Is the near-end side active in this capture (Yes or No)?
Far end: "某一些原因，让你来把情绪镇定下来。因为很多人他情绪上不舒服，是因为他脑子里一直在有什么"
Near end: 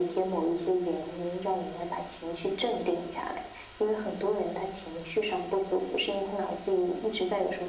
No